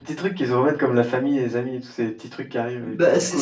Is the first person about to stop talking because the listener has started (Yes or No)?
Yes